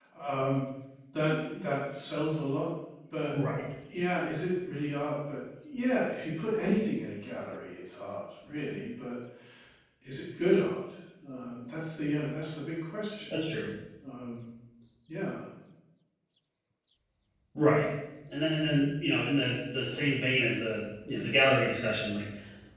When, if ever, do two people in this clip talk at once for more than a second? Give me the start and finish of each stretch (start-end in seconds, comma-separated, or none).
none